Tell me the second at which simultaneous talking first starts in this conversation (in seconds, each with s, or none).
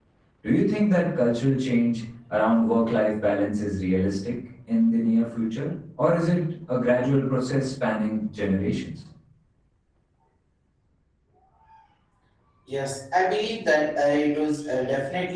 none